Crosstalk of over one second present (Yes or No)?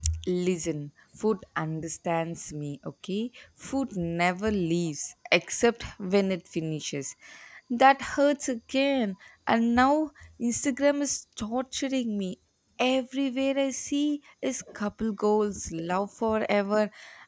No